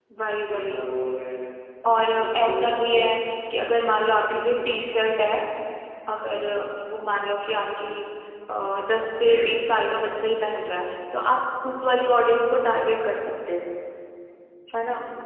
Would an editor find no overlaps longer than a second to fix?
No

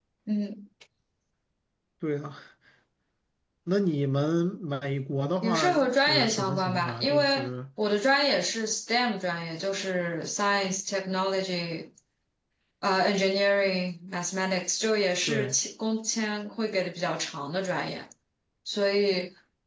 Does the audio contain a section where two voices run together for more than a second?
Yes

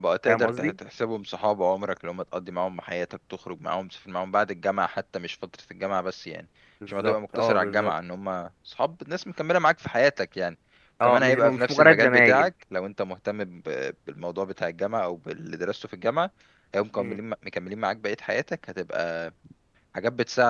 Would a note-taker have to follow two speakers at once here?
Yes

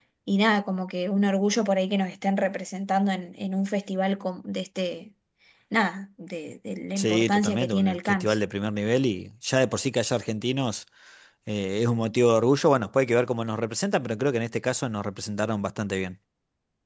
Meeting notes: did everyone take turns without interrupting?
No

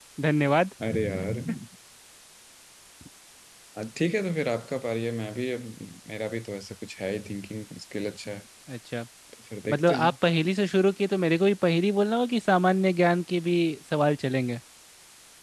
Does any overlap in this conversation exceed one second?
No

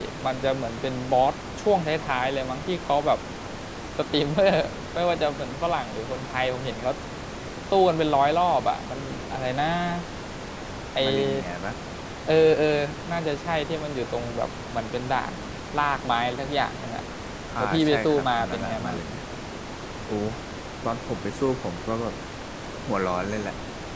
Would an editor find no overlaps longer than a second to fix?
No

